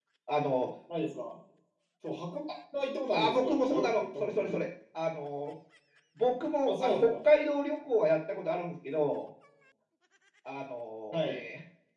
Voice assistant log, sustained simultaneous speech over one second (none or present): present